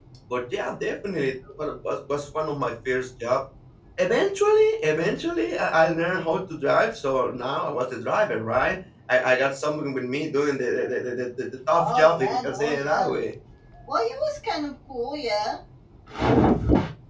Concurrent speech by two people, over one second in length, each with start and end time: 11.8-13.1

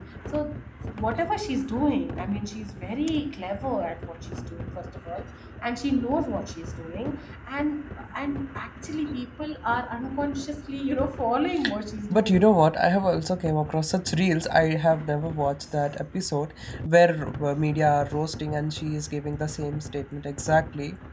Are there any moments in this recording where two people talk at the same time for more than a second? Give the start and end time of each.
none

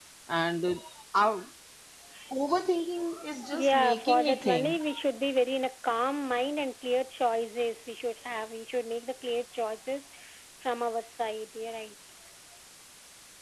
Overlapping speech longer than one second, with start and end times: 3.5-4.8

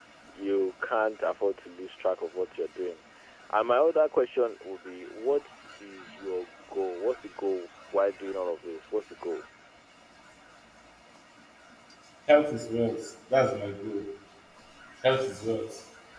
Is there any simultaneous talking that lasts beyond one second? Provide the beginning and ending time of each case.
none

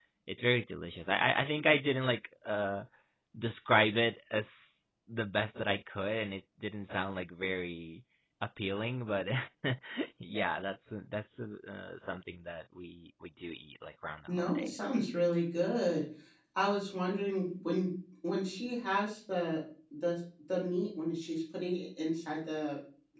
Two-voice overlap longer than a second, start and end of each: none

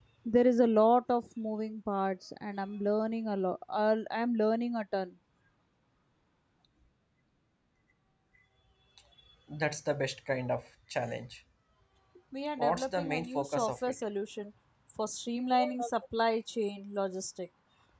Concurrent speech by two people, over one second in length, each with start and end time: 12.6-13.9

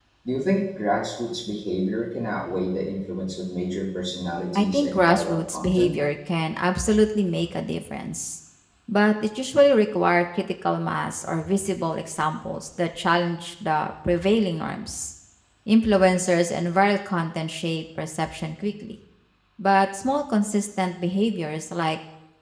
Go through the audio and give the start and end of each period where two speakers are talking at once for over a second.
4.5-5.9

